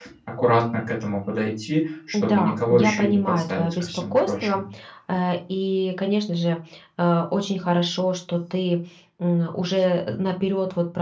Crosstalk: present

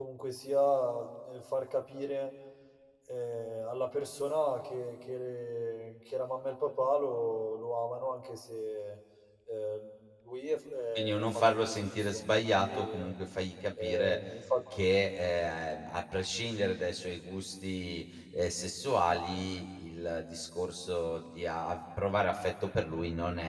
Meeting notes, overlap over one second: present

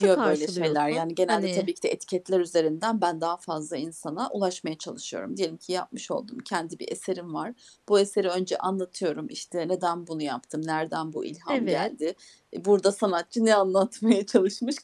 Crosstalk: present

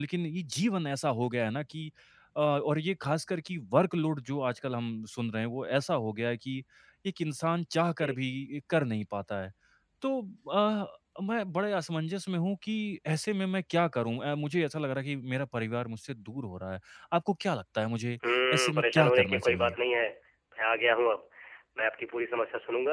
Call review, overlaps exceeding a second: present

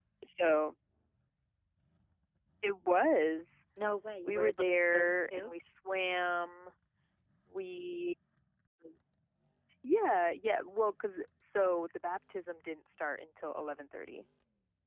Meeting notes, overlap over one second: present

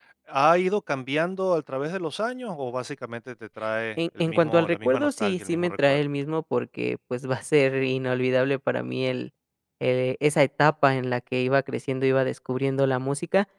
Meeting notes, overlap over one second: present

